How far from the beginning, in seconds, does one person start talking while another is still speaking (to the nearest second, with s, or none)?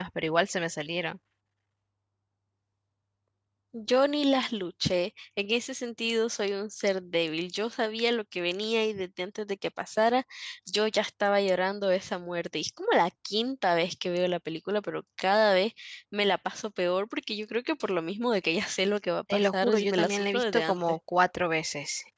19 s